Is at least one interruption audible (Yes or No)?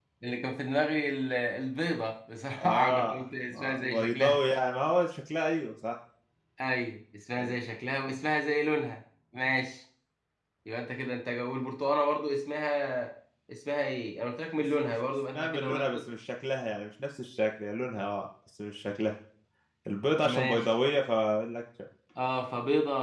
Yes